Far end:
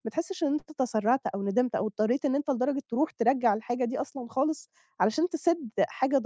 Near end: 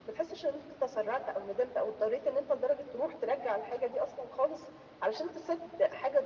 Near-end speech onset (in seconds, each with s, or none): none